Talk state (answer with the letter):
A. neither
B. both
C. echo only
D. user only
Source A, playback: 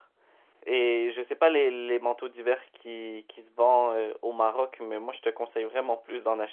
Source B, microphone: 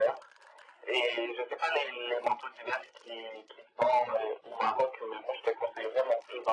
C